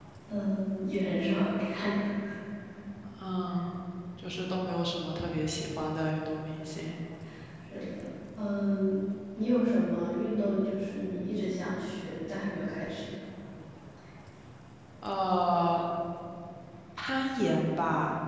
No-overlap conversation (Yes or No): Yes